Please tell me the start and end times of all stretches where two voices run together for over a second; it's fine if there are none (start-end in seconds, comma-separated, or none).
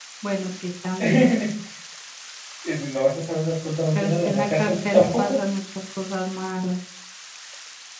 4.0-5.4